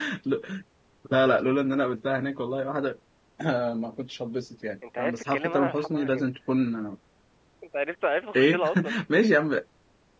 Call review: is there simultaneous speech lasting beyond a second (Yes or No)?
Yes